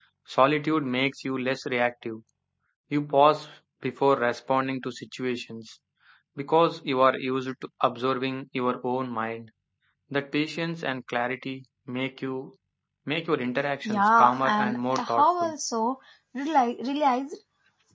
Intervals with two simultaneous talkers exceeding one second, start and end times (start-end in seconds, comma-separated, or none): 13.8-15.5